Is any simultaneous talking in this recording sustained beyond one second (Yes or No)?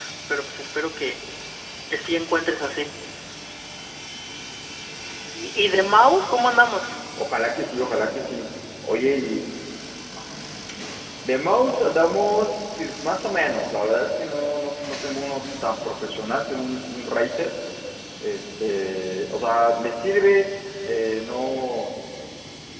No